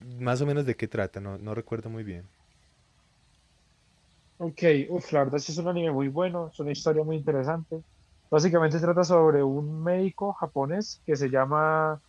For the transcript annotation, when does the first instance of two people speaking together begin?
none

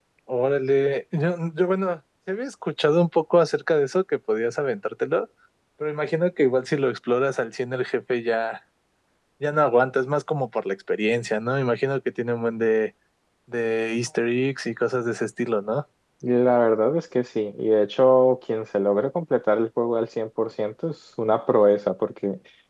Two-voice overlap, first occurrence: none

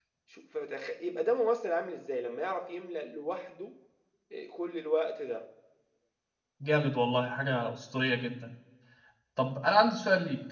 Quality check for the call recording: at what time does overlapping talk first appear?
none

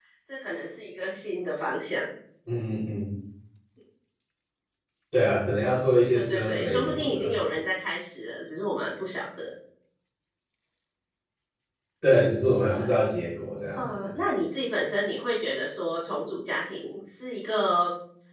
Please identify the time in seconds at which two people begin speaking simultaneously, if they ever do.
6.1 s

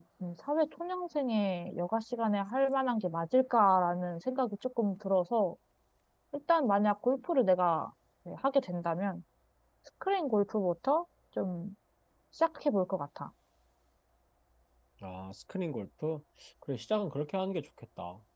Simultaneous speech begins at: none

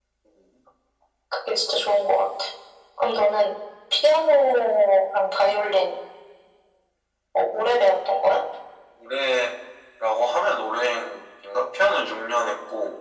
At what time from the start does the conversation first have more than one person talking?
none

